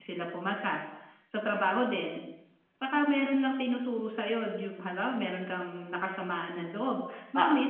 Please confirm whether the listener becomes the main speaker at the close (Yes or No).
No